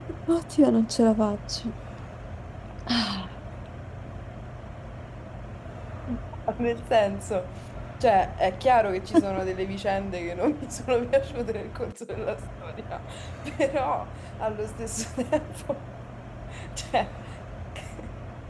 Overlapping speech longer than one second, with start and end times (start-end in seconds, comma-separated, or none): none